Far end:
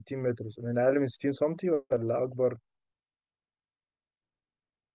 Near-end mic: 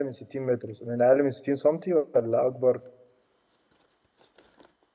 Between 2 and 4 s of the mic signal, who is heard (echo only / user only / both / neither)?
echo only